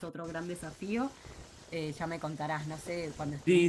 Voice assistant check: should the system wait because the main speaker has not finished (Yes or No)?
No